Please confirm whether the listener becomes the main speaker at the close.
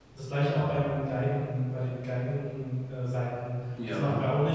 No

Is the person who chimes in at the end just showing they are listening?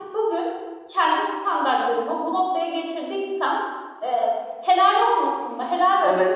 No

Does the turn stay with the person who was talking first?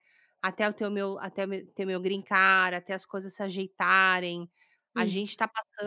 Yes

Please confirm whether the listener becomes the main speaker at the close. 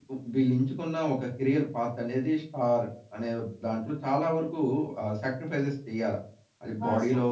No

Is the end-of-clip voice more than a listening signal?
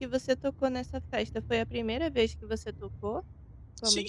Yes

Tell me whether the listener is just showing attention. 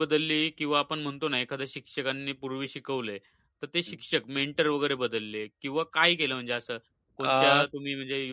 Yes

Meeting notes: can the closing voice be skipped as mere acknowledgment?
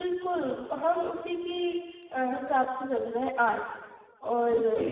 No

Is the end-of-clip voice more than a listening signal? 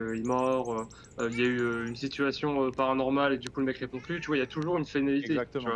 Yes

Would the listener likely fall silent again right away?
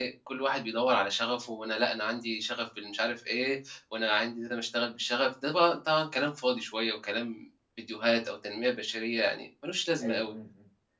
No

